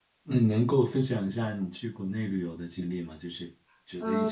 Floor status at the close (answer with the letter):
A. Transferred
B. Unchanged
A